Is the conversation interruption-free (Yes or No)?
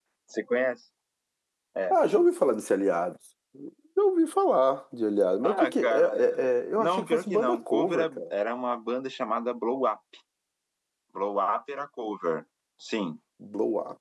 No